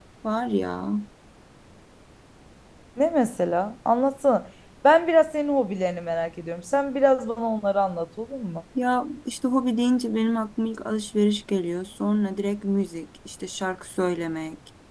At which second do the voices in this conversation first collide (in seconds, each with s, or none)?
none